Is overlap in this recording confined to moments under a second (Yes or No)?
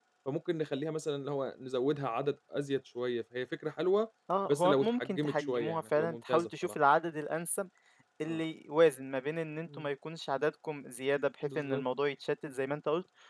No